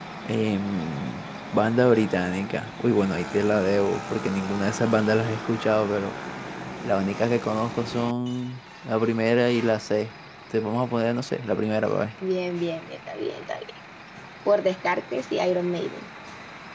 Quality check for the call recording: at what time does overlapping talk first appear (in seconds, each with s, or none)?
none